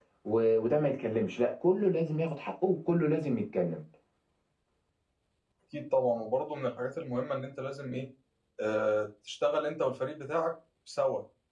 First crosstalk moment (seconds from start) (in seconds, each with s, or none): none